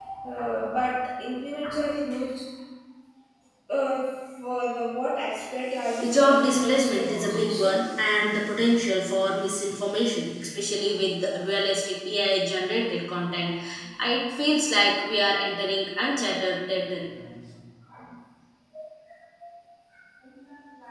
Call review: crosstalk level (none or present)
present